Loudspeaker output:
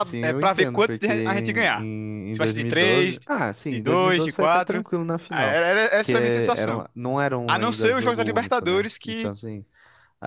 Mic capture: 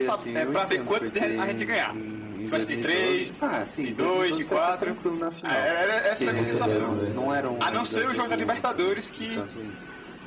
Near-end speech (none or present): present